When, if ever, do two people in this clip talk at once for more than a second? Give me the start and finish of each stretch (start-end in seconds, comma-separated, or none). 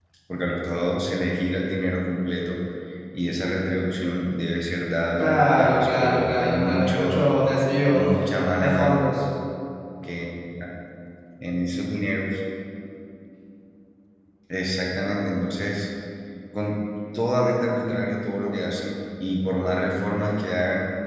5.2-7.3